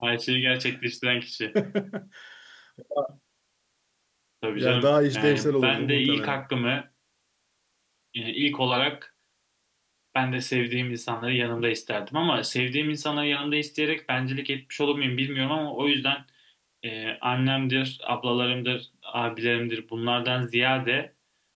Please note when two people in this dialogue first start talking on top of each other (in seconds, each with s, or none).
4.5 s